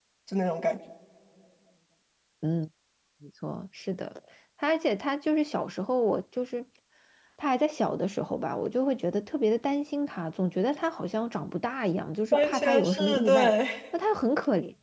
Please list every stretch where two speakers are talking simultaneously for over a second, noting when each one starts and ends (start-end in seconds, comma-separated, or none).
12.3-13.5